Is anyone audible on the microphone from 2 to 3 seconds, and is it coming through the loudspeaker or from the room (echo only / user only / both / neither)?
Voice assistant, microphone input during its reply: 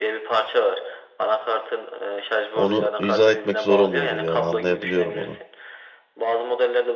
both